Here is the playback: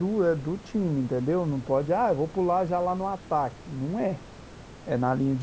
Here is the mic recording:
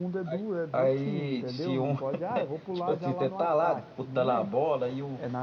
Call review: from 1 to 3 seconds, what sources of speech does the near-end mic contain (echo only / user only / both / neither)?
both